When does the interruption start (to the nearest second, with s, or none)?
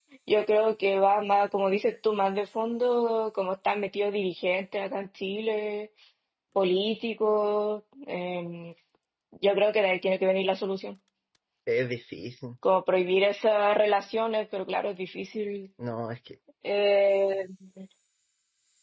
none